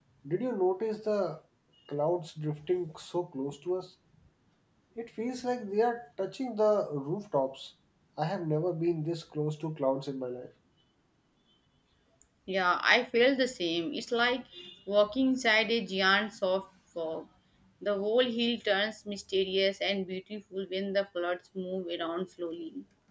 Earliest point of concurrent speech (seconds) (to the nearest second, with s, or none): none